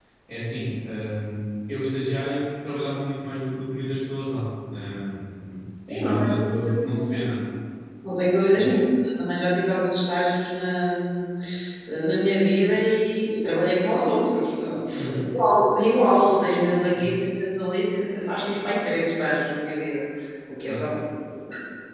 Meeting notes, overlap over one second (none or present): present